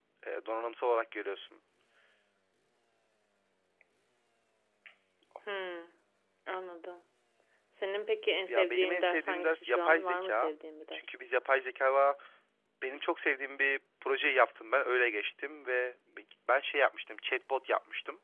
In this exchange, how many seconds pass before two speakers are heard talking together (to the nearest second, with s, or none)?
8 s